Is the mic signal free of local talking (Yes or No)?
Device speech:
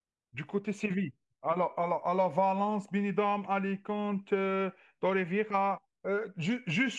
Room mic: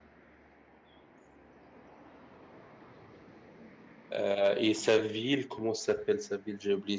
No